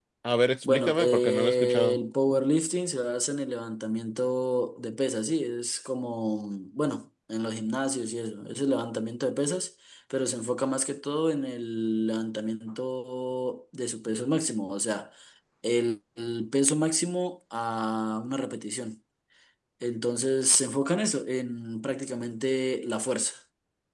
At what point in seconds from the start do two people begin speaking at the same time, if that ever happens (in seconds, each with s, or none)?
0.6 s